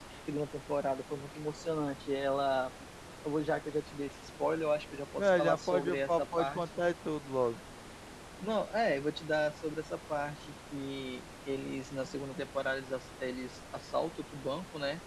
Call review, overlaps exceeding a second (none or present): present